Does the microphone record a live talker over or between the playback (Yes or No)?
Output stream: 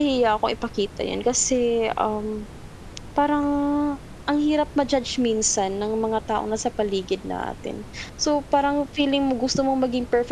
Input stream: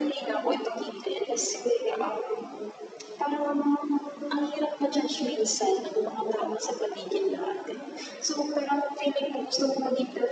No